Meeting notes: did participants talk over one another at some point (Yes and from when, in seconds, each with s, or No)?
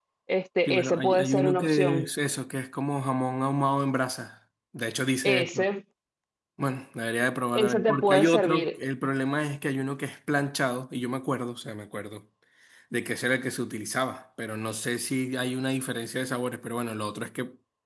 Yes, from 0.7 s